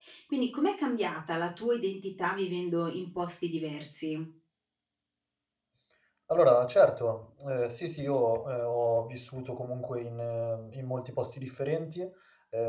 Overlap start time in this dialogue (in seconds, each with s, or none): none